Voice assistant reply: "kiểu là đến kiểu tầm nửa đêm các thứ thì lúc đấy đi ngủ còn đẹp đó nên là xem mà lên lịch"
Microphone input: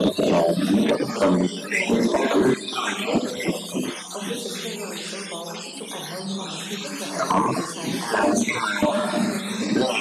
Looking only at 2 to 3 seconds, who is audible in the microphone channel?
both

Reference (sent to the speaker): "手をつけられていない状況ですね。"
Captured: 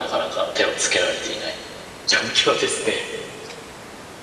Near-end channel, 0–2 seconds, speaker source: echo only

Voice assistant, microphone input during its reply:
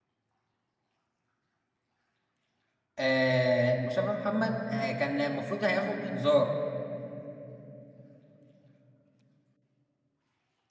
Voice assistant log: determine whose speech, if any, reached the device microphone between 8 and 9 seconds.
neither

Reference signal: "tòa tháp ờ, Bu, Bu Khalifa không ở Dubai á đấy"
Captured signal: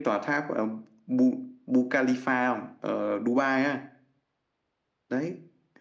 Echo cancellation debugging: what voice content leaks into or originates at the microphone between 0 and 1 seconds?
echo only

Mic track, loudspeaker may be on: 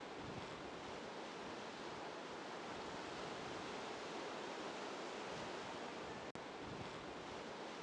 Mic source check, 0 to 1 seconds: neither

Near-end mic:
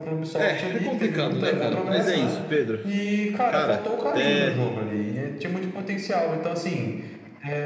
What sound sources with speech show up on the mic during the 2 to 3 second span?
both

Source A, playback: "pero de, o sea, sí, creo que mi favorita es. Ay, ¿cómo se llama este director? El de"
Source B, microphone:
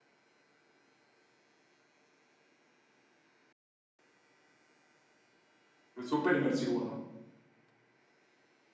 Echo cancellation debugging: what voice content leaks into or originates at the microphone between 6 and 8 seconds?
user only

